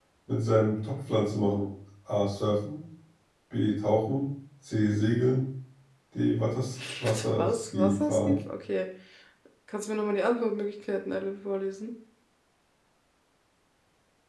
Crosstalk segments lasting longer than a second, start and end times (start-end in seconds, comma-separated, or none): 7.0-8.4